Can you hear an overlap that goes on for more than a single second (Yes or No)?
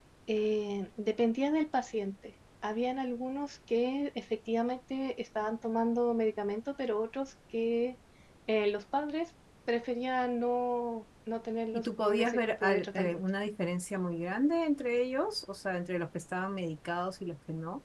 Yes